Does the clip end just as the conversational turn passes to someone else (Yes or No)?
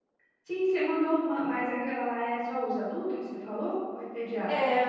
Yes